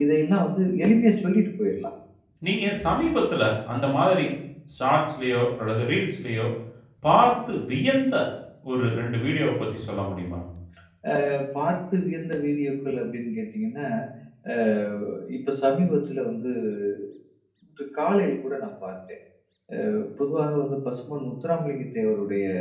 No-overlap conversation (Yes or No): Yes